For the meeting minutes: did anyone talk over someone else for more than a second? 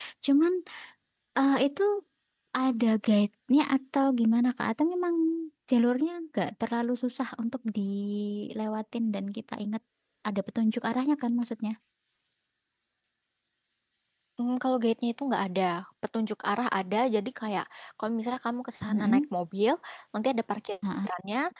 No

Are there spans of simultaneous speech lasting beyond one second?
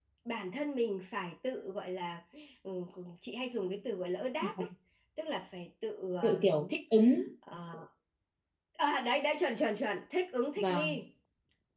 No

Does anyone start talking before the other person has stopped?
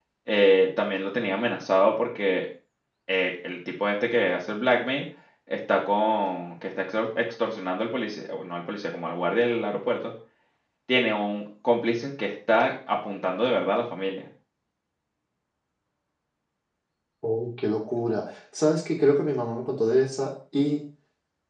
No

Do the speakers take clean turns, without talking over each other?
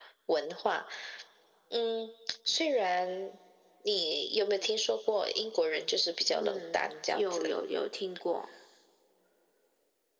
No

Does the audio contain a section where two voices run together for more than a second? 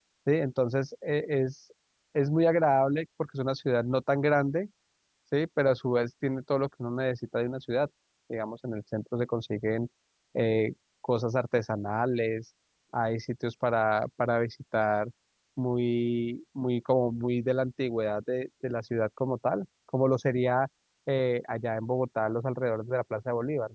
No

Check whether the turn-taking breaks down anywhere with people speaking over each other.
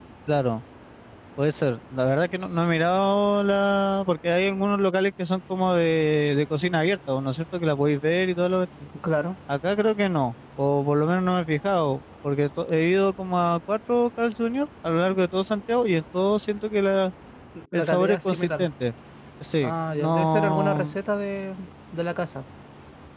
Yes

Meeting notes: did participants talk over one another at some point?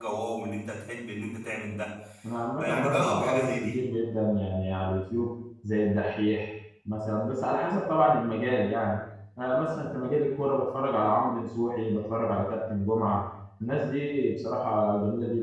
Yes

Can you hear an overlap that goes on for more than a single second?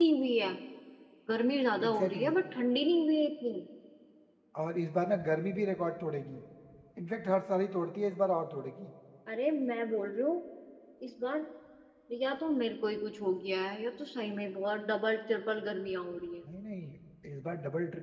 No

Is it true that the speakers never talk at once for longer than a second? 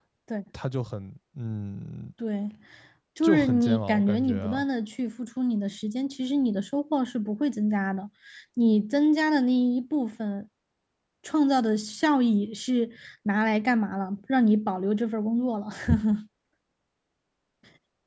No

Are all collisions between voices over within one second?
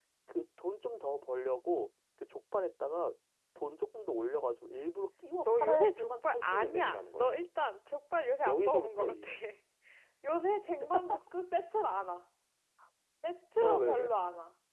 No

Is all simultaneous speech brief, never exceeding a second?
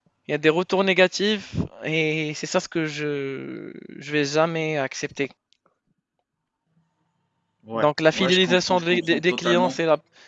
No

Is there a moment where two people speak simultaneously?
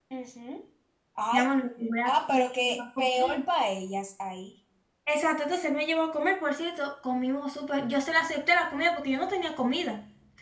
Yes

